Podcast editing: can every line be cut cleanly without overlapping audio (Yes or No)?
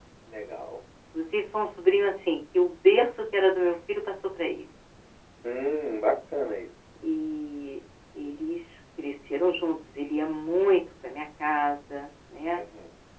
Yes